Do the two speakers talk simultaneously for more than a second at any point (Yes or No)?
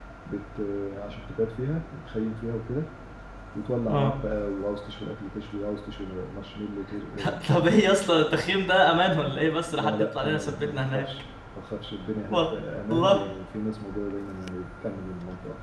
Yes